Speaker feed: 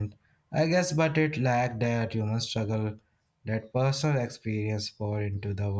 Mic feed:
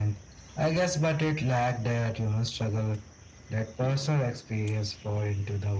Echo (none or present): present